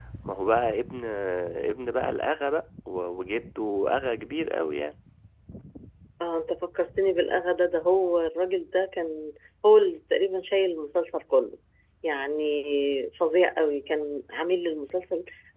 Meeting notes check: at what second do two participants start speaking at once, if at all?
none

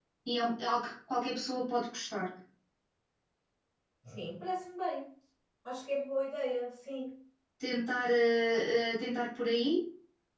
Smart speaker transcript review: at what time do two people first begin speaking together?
none

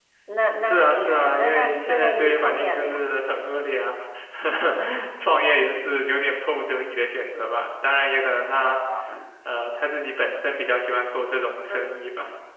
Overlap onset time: 0.6 s

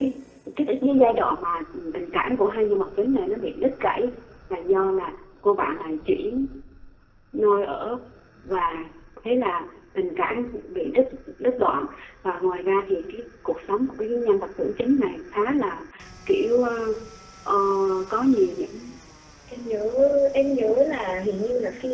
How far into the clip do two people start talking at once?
none

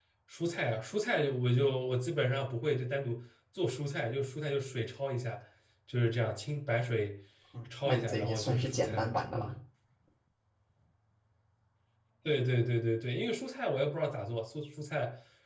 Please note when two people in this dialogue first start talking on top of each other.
7.8 s

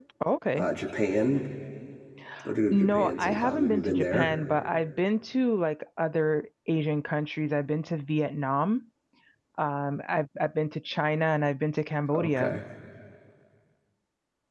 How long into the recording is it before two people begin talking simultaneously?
2.7 s

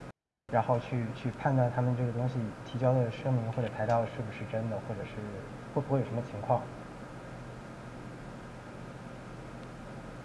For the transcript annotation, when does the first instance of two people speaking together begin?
none

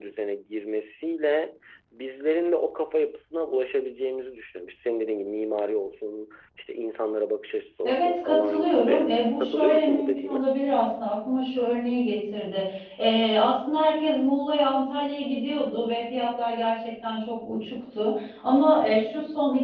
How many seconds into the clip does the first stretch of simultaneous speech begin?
7.8 s

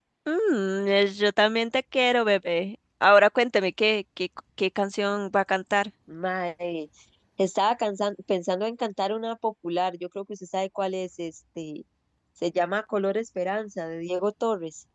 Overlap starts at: none

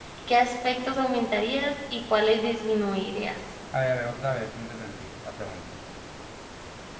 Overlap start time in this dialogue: none

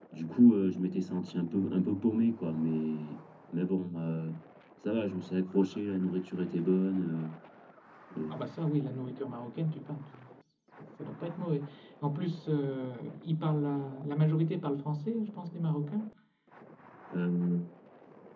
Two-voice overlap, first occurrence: none

